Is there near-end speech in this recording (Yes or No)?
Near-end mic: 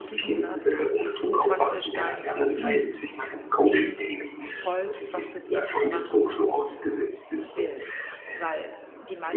Yes